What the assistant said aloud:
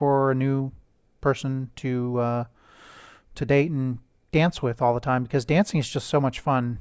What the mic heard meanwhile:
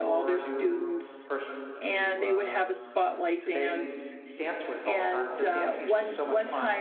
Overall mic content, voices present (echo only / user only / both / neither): both